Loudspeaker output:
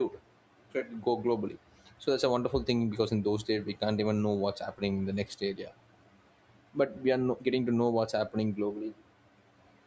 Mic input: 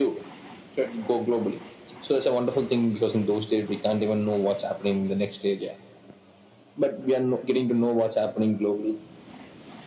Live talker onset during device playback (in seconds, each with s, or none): none